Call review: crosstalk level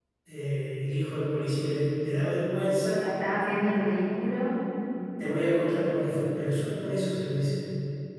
none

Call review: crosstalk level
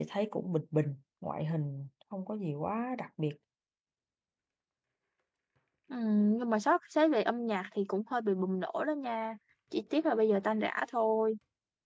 none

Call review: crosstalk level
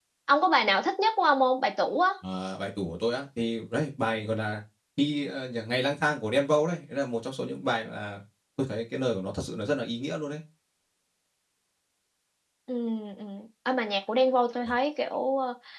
none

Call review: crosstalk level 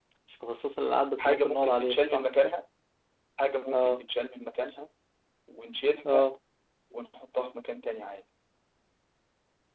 present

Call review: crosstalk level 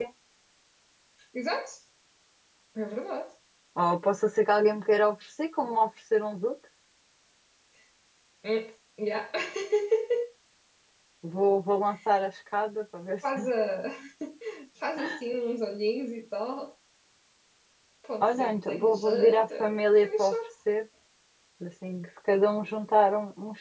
present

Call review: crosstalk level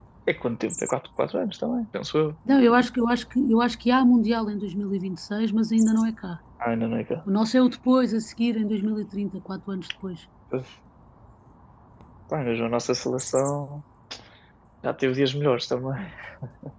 none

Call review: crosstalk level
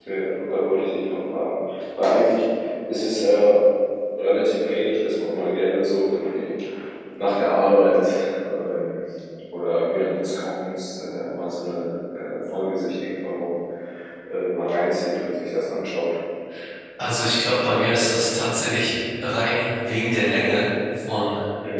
none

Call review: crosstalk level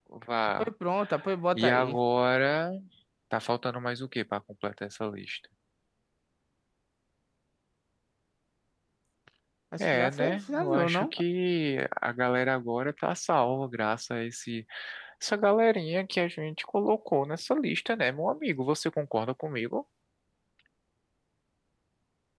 present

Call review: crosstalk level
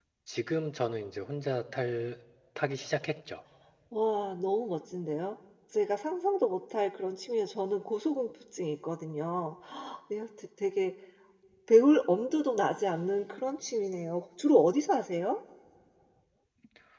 none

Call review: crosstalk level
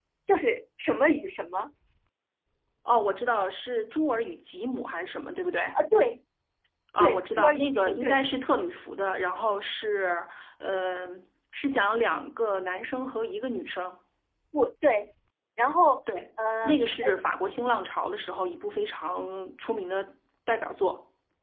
present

